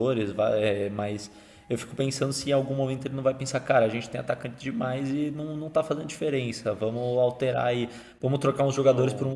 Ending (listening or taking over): listening